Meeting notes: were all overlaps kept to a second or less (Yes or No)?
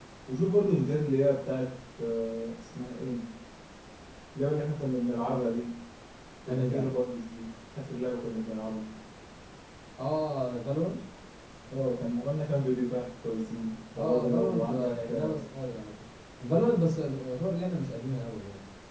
No